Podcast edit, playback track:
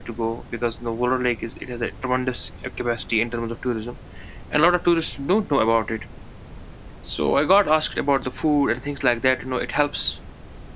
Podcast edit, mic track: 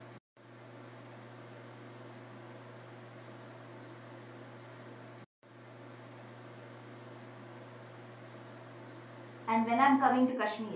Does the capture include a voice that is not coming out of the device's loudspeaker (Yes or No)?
Yes